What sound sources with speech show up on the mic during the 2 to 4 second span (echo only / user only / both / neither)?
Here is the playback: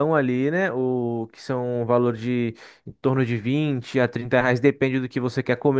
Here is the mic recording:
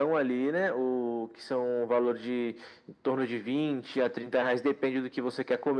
echo only